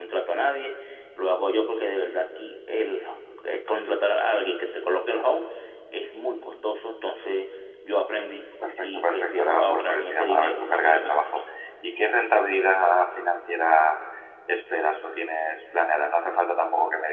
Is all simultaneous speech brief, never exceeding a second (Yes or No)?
No